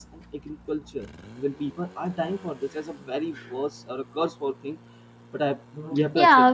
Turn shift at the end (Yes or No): Yes